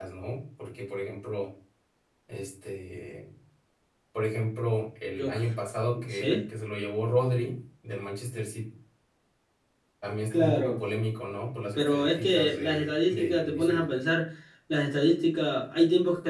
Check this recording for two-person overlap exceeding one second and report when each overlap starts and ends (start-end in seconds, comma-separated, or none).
11.8-13.8